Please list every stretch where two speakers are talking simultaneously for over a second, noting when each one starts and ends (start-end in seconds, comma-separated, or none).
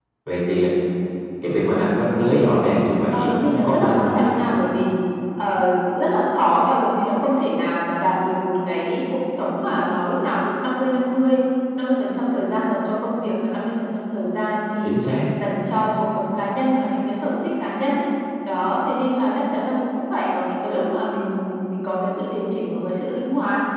3.1-4.6